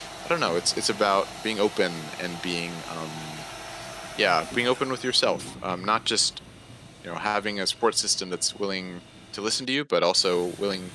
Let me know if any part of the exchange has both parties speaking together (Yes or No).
No